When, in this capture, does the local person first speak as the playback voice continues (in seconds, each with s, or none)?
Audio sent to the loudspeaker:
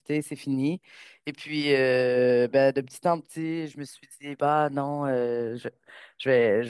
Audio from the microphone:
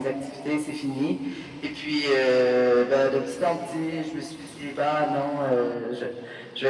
none